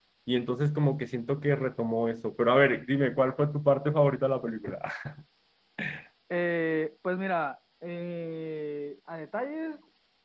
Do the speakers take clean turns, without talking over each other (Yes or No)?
Yes